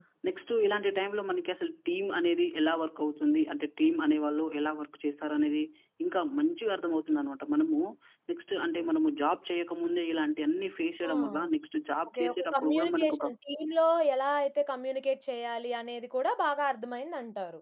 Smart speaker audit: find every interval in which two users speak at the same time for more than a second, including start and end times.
12.1-13.3

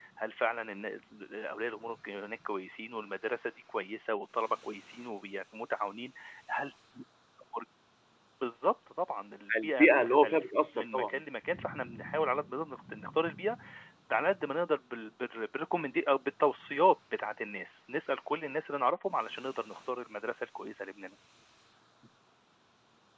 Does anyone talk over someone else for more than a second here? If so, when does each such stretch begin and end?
9.6-11.2

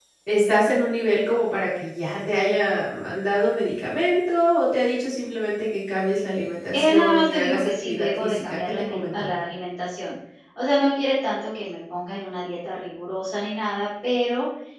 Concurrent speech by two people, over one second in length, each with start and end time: 6.7-9.3

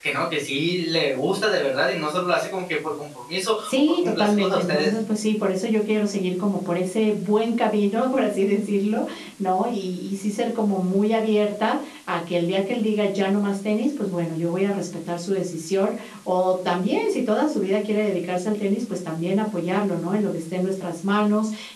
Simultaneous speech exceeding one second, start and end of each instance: 3.6-4.9

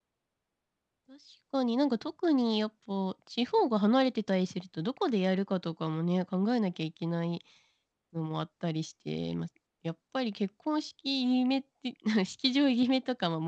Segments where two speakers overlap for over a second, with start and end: none

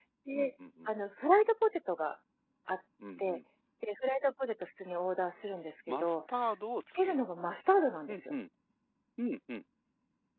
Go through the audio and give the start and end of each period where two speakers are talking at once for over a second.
none

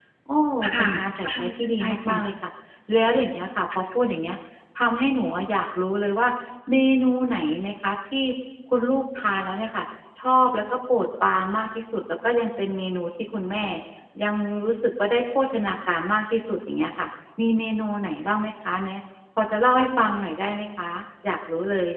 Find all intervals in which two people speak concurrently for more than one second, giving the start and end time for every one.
0.6-2.2

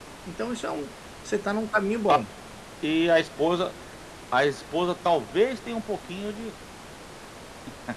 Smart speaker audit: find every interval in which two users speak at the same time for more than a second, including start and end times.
none

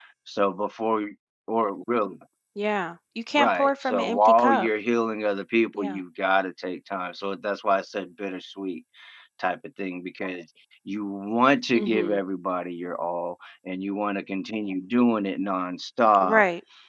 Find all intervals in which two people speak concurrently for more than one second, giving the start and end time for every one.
3.4-4.7

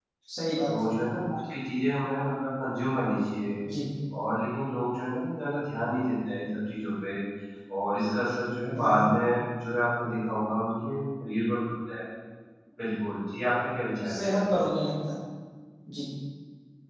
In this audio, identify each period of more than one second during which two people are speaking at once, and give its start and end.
none

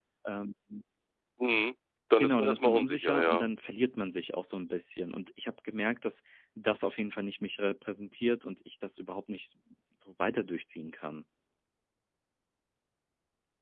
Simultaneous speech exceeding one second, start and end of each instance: 2.2-3.5

